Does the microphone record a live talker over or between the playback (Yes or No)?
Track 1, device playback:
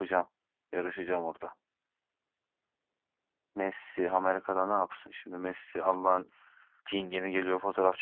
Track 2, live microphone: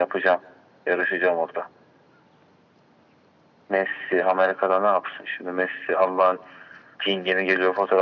No